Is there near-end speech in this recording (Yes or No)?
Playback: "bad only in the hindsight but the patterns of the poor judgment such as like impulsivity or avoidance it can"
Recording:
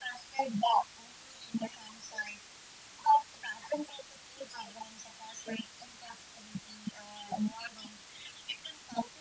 No